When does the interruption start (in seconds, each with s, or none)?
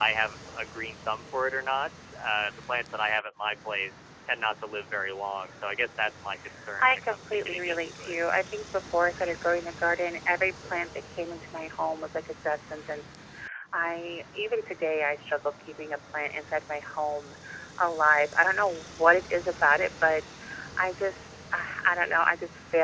6.6 s